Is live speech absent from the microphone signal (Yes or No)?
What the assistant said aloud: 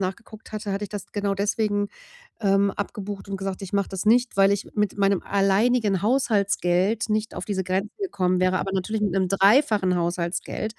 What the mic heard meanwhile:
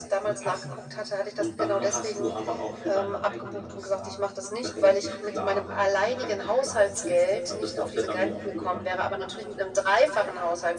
No